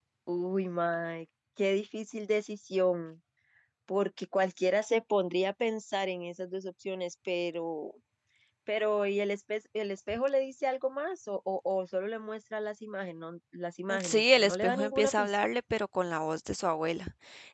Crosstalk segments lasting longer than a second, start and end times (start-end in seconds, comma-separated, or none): 14.0-15.3